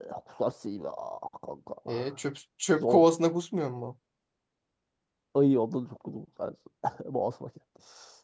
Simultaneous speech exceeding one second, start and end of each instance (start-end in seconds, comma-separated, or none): none